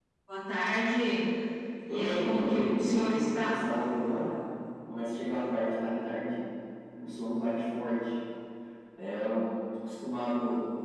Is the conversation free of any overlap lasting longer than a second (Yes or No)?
No